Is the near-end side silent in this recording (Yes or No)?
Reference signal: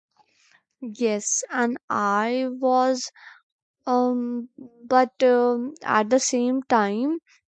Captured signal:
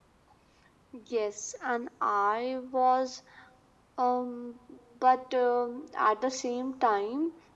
Yes